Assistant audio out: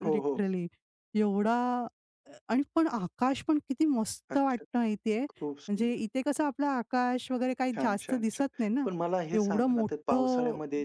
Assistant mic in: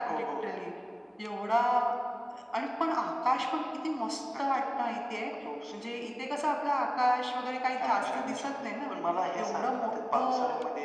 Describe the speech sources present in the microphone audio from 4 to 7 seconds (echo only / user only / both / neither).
echo only